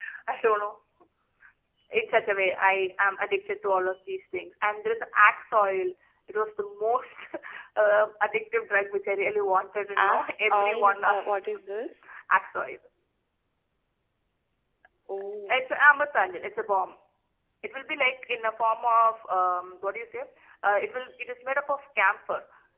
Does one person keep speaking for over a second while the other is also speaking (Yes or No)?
Yes